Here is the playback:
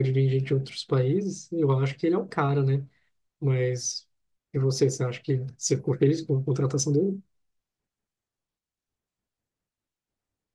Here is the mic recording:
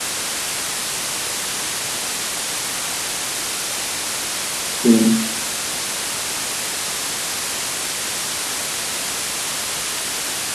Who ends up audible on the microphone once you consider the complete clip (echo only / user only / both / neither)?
user only